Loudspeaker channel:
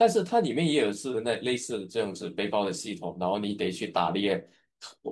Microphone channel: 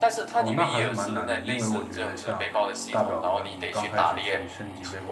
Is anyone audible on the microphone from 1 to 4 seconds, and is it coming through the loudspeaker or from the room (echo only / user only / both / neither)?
both